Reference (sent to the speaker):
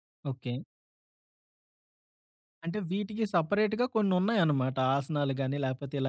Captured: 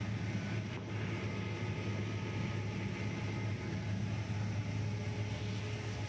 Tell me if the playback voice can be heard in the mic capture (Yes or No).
No